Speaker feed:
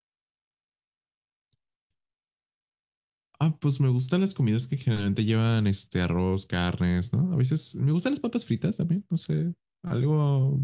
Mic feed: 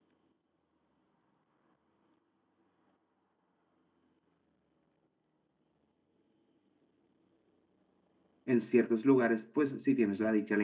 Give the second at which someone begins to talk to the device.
8.4 s

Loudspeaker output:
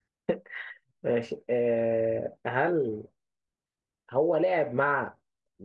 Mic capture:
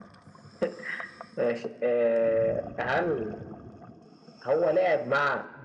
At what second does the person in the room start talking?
none

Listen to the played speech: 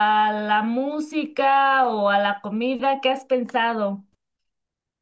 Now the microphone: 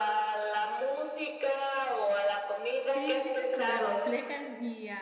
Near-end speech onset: 2.9 s

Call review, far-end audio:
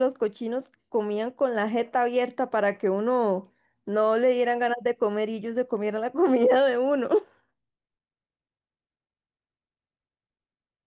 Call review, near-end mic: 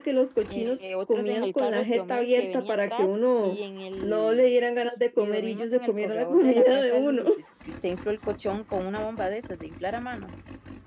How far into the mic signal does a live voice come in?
0.5 s

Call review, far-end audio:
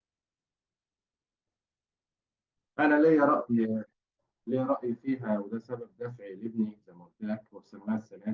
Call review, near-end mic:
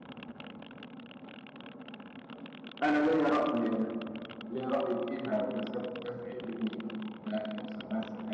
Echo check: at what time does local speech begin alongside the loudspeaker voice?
none

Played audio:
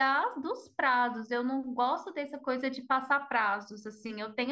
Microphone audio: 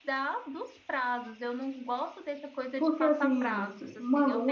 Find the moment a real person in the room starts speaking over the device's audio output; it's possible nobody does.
2.8 s

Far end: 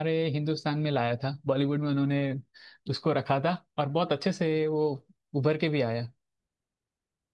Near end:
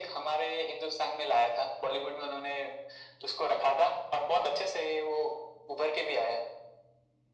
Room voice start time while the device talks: none

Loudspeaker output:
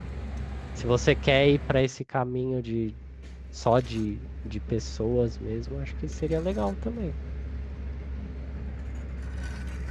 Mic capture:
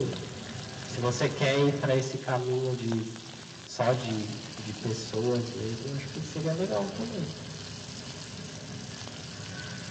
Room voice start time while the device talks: none

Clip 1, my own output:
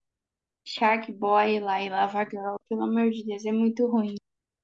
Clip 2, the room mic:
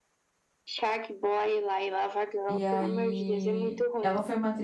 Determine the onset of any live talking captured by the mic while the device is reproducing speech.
2.5 s

